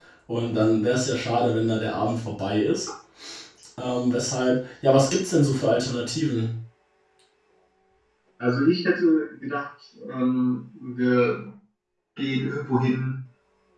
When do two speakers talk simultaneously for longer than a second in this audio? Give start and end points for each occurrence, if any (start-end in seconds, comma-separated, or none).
none